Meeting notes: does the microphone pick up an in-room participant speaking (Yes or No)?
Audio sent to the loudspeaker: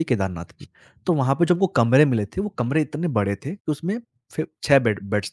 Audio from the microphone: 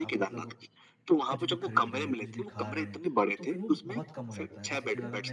Yes